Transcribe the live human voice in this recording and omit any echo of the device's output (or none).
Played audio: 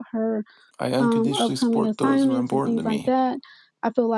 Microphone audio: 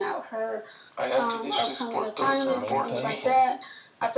I remain thankful,